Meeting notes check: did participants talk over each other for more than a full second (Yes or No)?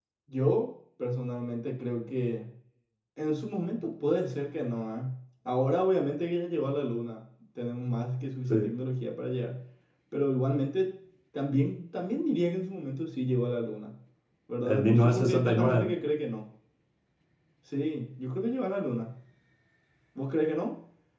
Yes